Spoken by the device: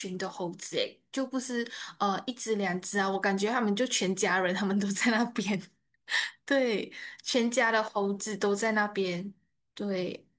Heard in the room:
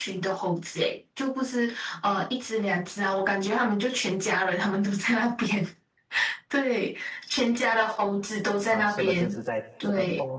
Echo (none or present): present